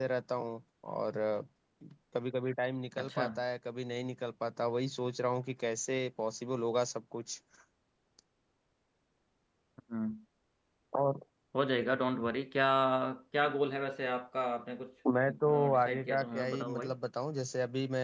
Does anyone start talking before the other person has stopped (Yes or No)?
Yes